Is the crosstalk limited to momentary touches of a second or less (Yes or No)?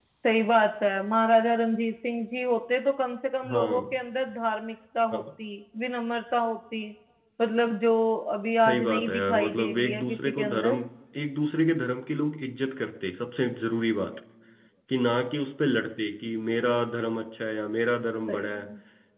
No